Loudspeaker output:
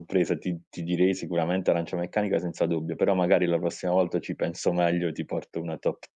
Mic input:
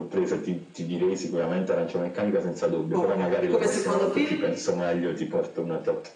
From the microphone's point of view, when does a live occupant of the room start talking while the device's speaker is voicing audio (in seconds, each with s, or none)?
2.9 s